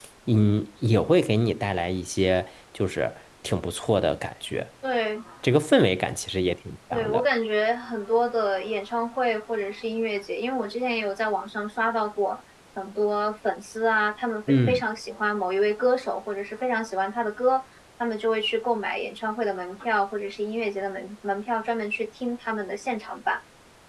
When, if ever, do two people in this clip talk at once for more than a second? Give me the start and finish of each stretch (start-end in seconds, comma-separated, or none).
none